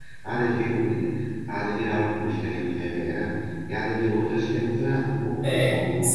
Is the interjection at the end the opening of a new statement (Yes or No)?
Yes